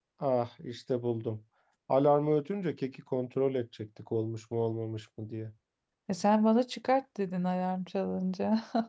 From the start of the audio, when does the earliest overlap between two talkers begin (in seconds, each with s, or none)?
none